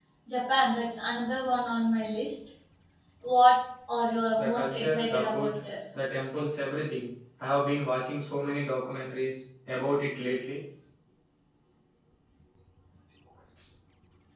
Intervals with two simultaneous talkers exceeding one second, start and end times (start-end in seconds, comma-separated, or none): 4.4-5.6